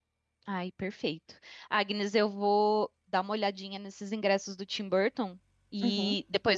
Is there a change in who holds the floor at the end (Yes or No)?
No